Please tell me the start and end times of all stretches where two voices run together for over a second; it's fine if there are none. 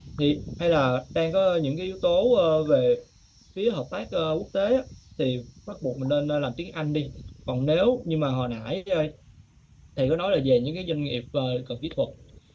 none

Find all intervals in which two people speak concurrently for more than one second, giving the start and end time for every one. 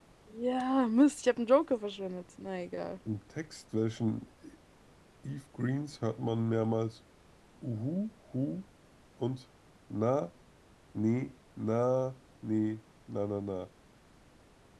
none

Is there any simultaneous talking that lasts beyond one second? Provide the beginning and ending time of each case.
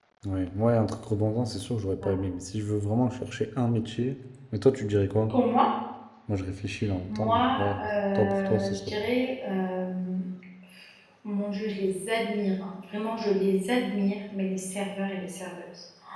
7.1-8.8

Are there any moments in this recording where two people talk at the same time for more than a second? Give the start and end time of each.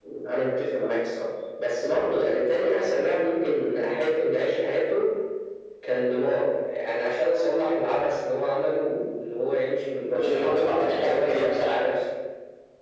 10.1-11.8

